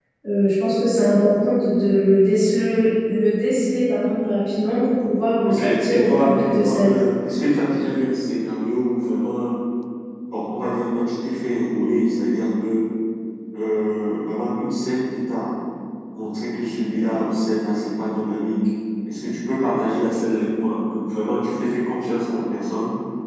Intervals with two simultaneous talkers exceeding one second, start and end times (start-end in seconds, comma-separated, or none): 5.5-7.0